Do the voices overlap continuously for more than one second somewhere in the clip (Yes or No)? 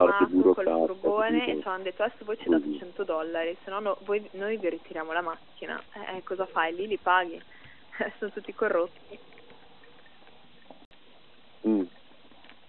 Yes